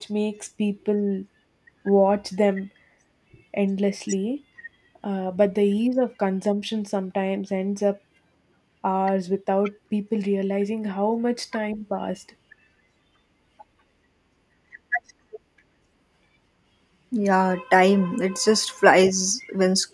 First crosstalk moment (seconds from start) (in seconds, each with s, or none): none